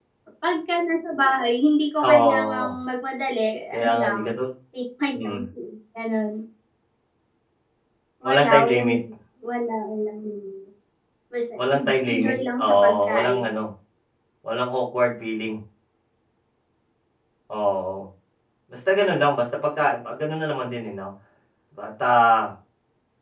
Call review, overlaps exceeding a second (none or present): present